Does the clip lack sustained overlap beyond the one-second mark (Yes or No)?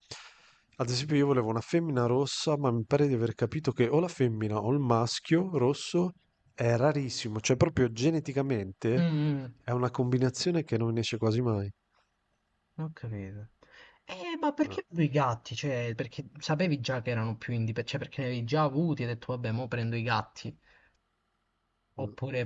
Yes